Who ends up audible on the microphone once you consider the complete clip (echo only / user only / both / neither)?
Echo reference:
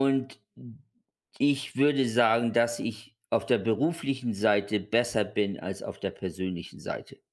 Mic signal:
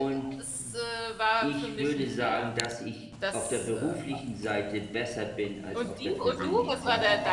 both